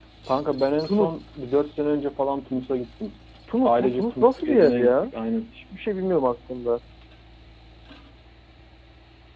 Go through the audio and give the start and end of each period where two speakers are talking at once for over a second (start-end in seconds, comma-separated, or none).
3.6-5.1